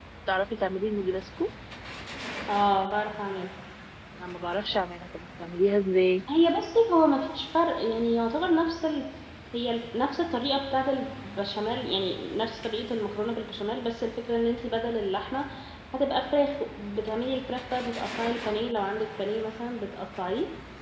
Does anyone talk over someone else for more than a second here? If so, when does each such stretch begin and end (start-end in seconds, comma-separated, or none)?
none